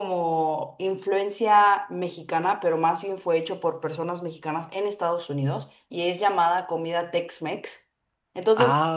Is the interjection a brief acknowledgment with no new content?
Yes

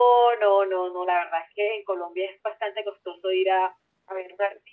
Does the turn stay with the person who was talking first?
Yes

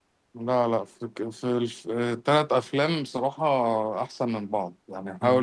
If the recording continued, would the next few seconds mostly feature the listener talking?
No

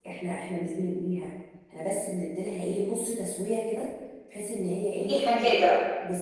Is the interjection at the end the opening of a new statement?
No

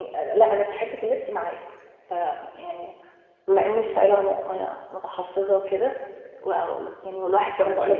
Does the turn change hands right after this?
No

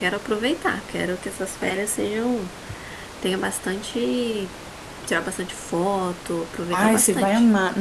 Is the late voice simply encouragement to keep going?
No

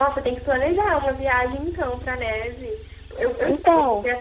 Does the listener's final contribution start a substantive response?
No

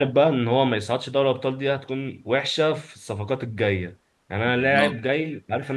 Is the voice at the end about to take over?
No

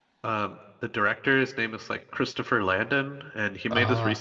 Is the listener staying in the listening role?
Yes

